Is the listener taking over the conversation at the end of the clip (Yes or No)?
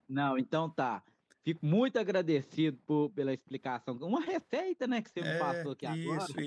Yes